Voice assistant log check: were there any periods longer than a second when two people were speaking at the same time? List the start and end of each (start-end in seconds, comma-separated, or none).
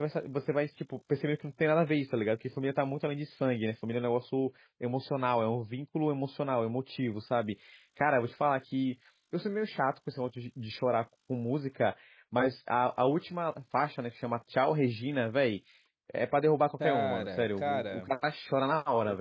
16.8-18.1